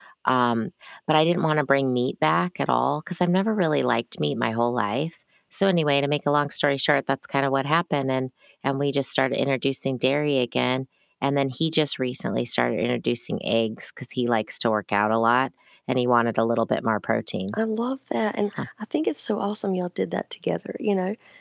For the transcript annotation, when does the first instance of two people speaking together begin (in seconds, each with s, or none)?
none